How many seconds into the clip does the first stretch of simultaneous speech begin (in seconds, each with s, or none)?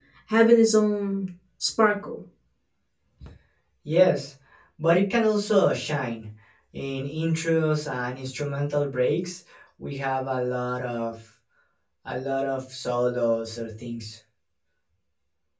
none